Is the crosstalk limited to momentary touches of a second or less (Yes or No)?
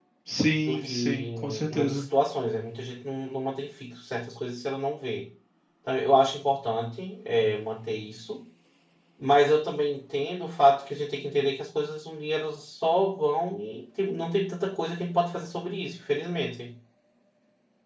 No